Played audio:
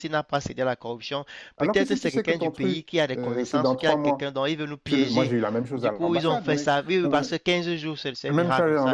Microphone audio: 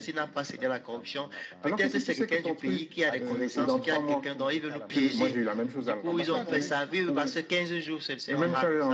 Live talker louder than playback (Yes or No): No